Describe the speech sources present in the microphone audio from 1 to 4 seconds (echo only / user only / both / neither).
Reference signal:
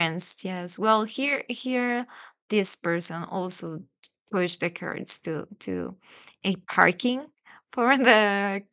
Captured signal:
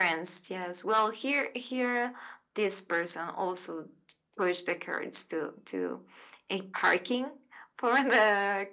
echo only